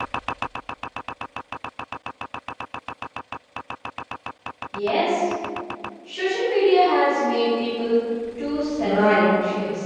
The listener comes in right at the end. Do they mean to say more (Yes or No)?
Yes